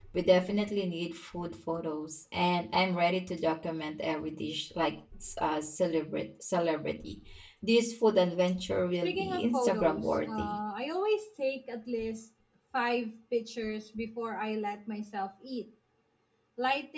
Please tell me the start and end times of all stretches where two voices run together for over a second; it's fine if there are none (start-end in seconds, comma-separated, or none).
9.0-10.6